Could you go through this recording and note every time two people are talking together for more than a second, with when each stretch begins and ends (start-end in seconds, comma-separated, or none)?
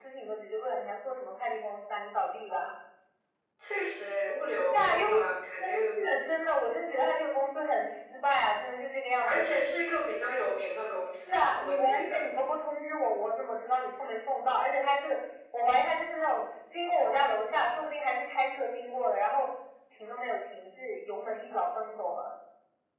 11.0-12.3